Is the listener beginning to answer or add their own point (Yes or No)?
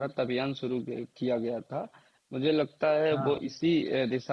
No